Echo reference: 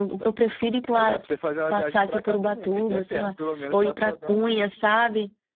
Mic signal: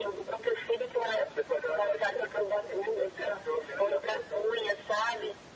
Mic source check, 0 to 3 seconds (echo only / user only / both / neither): echo only